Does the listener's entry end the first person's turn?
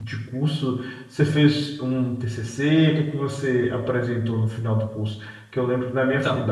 No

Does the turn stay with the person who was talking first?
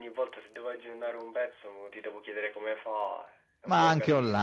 No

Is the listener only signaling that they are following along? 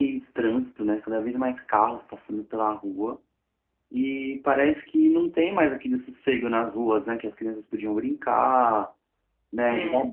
Yes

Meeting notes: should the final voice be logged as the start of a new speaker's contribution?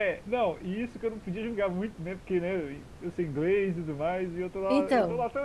No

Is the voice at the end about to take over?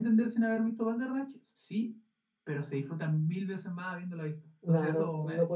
Yes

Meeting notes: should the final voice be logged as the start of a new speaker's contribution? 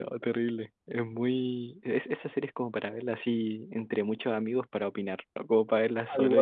Yes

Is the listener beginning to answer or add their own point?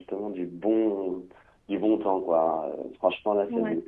No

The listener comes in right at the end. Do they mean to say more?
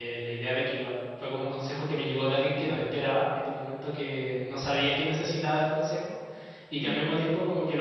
No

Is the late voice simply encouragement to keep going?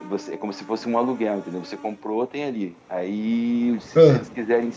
Yes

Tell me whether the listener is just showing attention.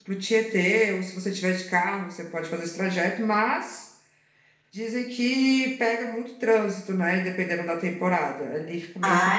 No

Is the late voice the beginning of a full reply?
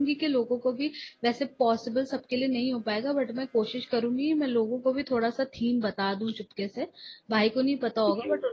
No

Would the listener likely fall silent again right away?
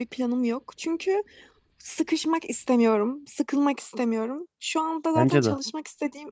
Yes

